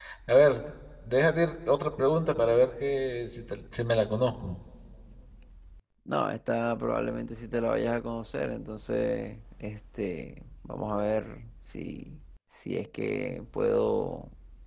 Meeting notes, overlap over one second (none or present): none